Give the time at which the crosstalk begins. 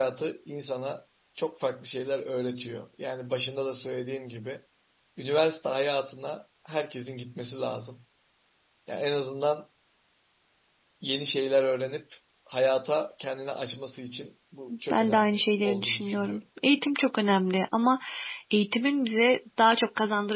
15 s

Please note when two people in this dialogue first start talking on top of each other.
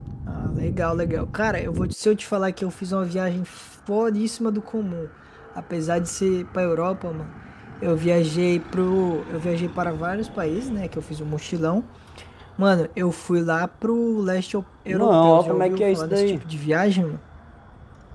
15 s

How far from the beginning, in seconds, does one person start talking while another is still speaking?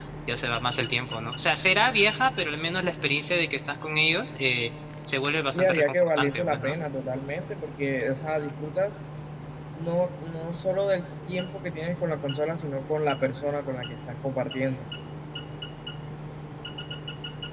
6 s

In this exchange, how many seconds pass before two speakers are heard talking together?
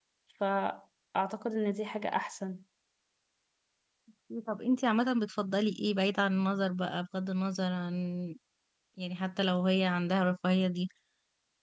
none

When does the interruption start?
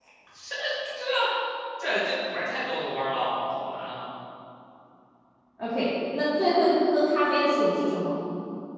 none

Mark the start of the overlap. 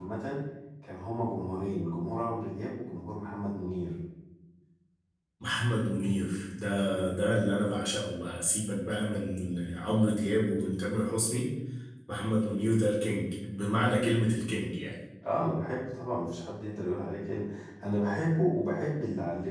none

